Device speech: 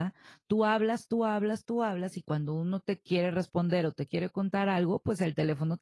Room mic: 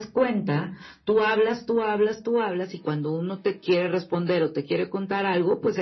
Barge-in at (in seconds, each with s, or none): none